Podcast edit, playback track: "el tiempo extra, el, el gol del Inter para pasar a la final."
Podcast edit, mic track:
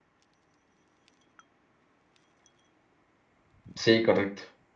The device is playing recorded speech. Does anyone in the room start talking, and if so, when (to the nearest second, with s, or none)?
4 s